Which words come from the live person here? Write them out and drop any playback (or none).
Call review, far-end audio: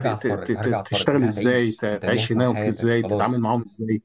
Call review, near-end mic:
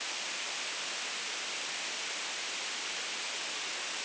none